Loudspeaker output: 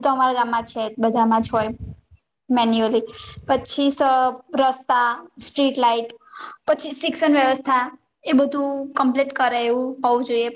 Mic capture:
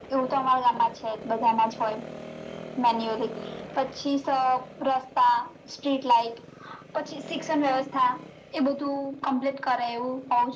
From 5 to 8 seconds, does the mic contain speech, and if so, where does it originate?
echo only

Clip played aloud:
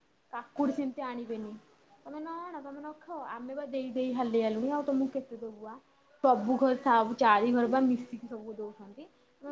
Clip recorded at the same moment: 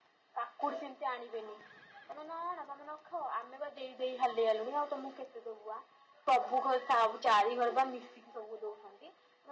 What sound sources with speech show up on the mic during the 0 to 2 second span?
echo only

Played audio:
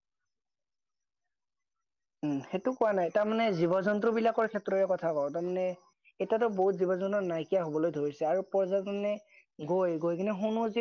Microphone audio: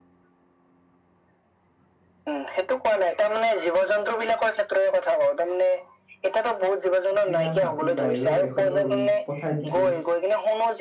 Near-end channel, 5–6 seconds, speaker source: echo only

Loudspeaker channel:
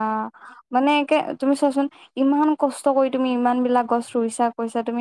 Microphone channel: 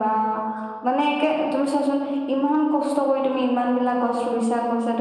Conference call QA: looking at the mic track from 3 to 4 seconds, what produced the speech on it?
echo only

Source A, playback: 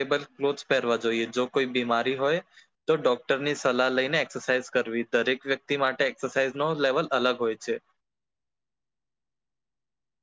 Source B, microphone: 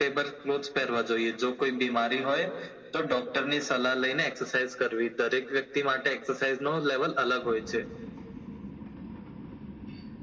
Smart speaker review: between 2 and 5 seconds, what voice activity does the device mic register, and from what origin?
echo only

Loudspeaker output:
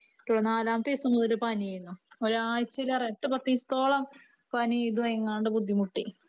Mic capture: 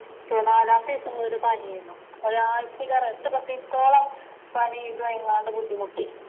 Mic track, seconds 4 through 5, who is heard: echo only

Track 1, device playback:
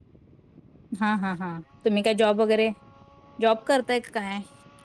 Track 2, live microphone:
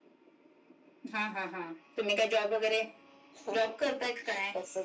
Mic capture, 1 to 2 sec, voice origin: echo only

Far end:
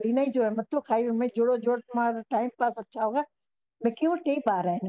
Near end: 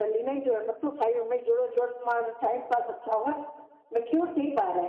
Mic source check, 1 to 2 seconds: echo only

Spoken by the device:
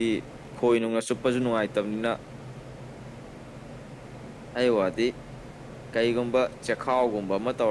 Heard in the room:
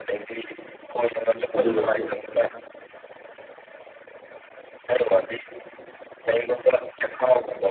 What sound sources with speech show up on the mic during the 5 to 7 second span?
echo only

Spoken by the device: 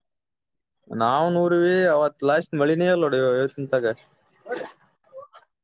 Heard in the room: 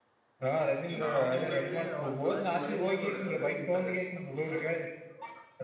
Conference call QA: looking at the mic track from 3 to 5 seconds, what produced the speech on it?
both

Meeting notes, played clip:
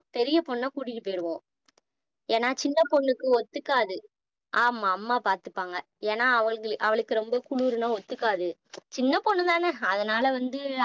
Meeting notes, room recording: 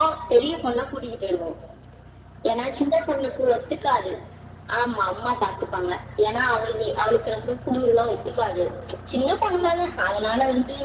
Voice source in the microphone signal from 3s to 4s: echo only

